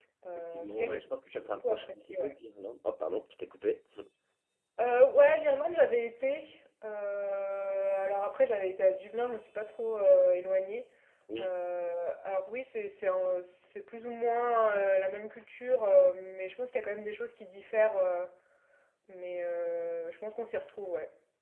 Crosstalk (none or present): present